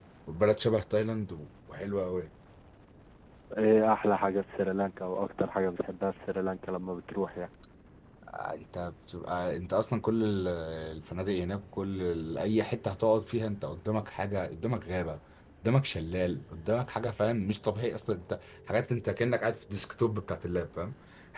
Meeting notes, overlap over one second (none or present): none